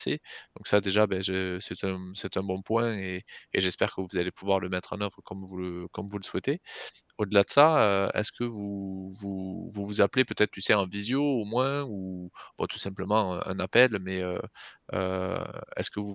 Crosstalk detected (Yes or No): No